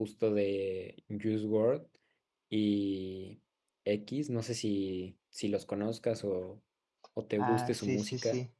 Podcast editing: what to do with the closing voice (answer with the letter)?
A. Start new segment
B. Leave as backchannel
A